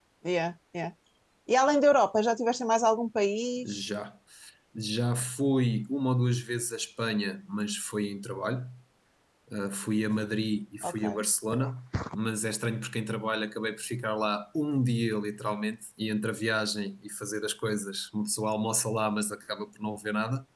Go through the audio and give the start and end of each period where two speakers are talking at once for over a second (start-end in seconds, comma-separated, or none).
none